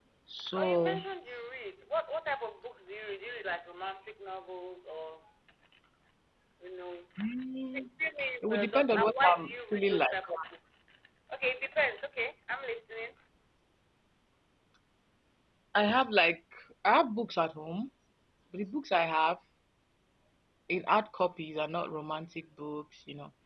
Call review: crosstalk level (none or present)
present